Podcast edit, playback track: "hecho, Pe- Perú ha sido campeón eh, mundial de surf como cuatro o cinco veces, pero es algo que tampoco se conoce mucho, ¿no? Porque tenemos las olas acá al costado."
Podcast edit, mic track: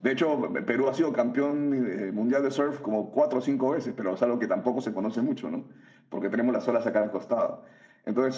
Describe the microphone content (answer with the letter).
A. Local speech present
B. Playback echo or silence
B